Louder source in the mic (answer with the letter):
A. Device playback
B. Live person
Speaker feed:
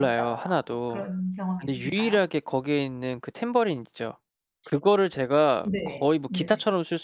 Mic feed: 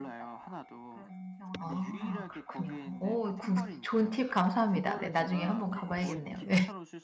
B